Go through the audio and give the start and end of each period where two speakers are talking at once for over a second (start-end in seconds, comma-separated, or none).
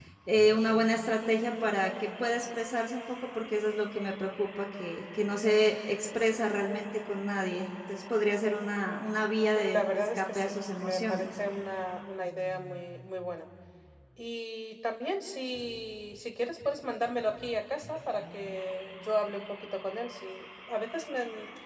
9.6-11.3